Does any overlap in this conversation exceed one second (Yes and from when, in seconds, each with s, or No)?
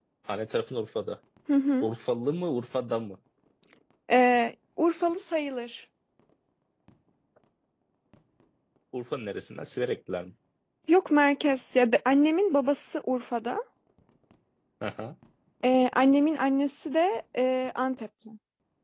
No